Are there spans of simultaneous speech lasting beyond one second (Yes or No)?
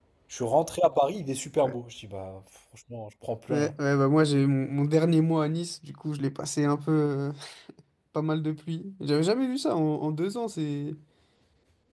No